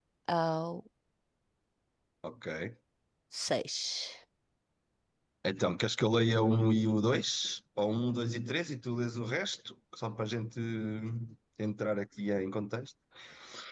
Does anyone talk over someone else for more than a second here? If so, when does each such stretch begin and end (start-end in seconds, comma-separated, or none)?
none